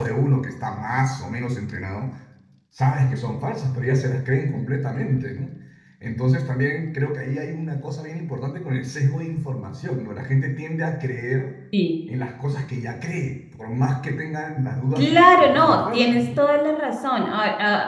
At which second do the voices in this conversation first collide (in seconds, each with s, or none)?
15.0 s